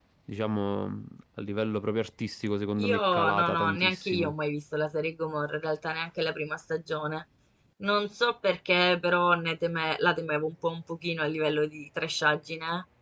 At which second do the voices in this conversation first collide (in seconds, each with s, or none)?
2.8 s